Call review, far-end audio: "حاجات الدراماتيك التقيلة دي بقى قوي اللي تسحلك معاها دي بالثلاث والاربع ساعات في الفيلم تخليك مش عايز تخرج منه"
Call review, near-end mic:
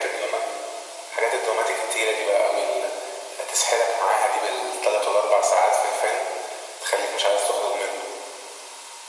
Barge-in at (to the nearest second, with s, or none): none